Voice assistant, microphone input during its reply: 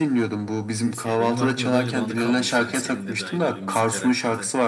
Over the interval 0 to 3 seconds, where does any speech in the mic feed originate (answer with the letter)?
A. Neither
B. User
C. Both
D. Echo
C